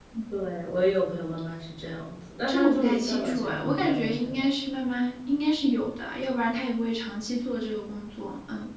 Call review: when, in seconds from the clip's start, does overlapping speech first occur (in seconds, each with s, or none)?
2.5 s